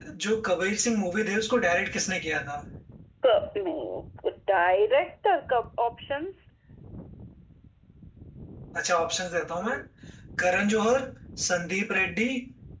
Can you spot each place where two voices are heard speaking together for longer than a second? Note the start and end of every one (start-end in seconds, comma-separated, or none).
none